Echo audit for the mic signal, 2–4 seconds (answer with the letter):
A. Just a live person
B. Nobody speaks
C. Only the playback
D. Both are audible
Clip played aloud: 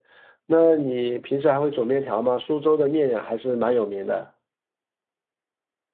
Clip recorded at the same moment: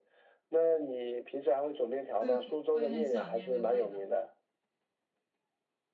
D